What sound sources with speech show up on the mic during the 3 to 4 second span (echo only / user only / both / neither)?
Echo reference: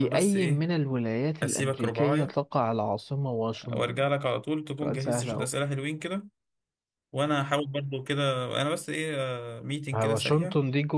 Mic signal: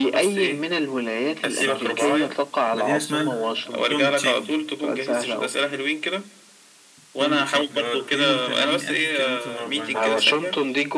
both